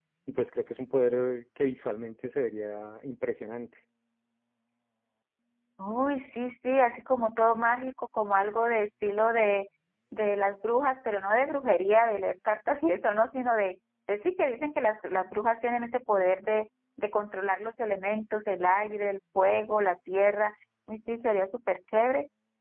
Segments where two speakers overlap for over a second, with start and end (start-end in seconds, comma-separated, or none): none